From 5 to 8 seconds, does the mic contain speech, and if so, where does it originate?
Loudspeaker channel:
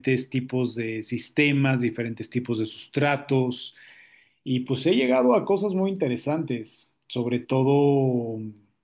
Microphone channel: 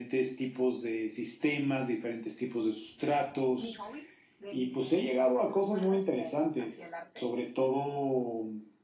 both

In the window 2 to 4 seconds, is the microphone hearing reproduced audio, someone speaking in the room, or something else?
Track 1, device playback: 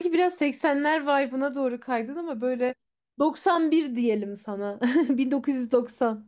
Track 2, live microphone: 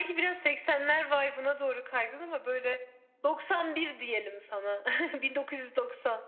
echo only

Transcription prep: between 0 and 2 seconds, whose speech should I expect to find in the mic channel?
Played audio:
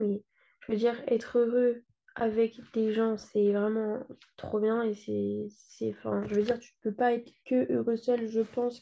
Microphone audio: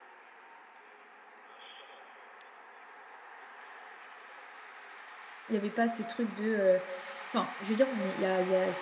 neither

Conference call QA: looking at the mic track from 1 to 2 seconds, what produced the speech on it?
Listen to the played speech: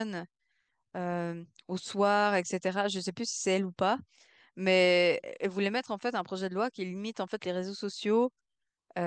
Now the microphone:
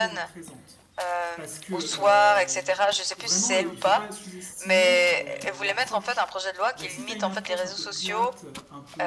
both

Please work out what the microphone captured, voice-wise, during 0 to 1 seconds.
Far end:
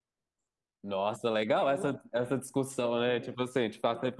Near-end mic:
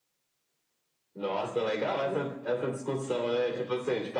neither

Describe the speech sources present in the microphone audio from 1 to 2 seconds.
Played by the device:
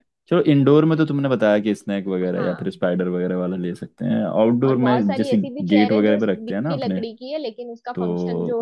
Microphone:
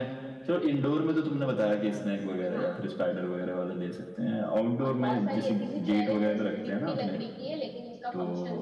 echo only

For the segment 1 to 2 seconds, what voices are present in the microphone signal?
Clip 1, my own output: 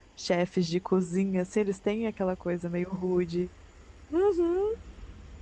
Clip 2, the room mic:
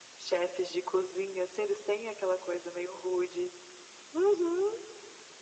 echo only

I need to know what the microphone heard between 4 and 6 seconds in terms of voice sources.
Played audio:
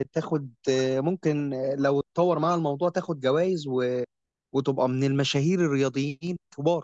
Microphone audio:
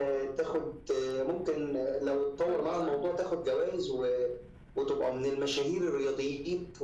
echo only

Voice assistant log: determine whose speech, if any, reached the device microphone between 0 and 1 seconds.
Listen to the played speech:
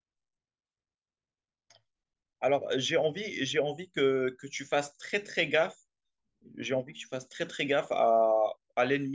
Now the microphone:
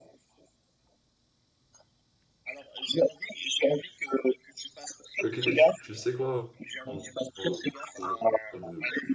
neither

